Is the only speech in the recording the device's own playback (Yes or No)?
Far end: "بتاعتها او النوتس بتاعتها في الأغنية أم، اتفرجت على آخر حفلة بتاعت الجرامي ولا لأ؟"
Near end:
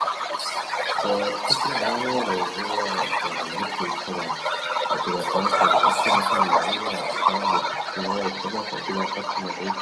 No